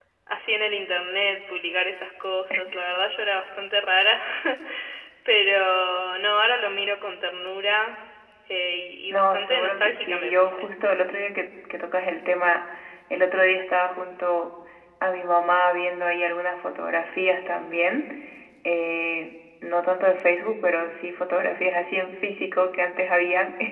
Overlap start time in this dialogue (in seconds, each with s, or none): 9.1 s